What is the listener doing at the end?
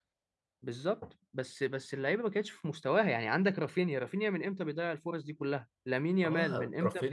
taking over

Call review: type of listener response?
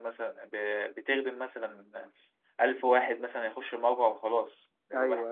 listening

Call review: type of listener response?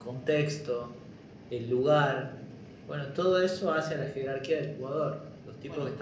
listening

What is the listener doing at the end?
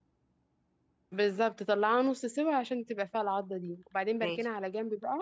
listening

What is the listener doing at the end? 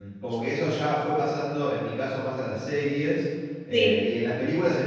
listening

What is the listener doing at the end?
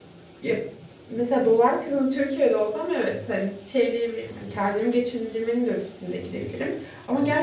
listening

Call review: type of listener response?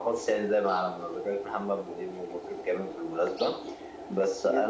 listening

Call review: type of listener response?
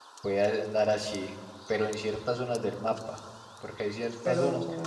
listening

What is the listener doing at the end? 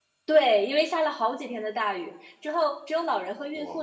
listening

